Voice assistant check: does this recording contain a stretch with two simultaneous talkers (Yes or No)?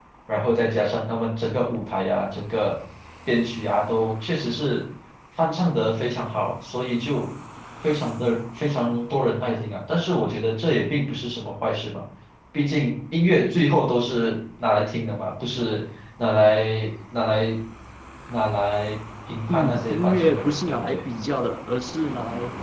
Yes